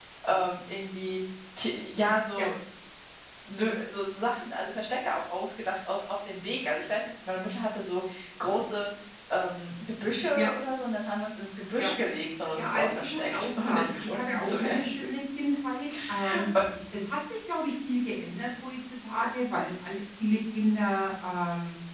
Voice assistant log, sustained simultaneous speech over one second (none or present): present